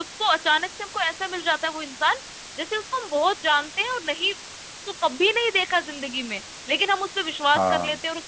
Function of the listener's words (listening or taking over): listening